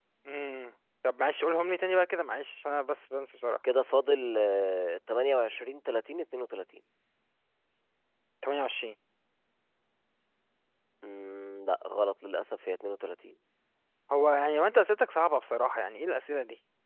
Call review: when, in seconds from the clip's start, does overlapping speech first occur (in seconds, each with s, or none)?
none